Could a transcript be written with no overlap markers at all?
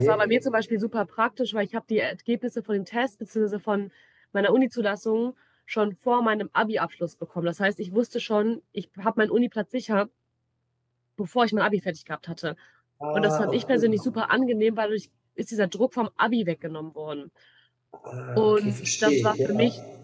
No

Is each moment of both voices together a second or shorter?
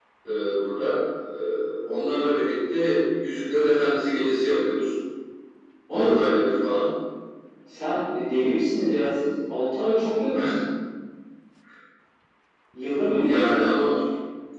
Yes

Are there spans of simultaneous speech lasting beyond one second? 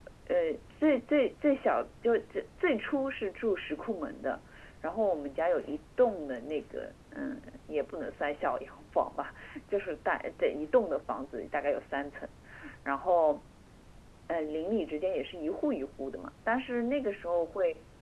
No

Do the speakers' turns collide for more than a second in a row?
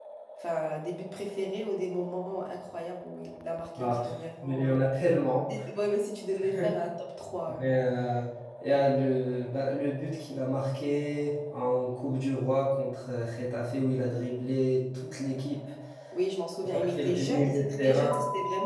Yes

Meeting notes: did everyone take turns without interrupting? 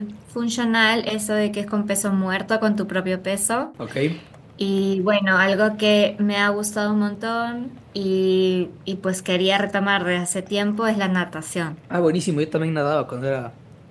Yes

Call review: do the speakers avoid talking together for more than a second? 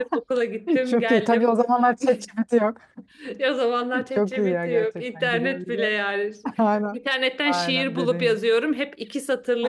No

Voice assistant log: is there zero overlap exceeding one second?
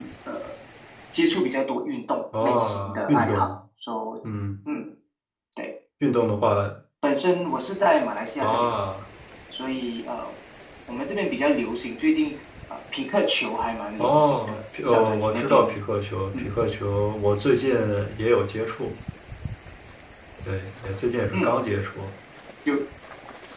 No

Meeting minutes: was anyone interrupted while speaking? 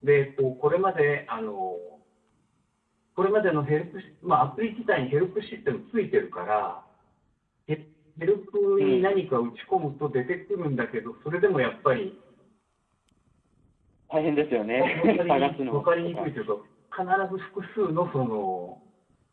Yes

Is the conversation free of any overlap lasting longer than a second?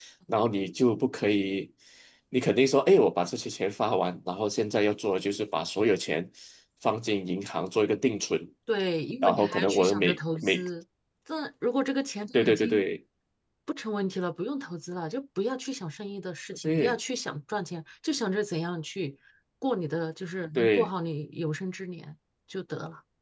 No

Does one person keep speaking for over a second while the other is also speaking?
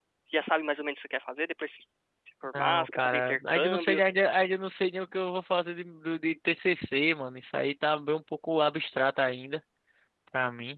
Yes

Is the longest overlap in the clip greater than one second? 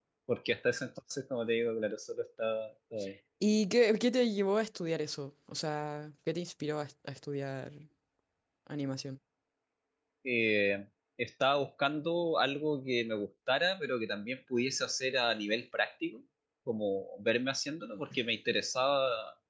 No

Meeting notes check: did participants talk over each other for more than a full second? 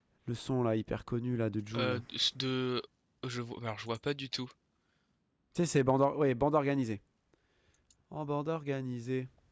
No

